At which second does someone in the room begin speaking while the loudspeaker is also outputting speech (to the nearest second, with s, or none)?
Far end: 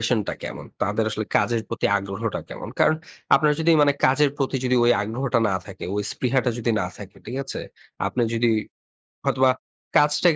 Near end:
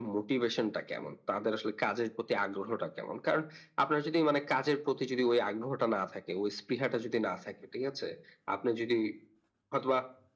none